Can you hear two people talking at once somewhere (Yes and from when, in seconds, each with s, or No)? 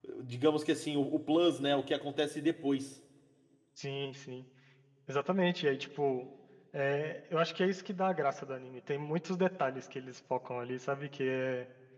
No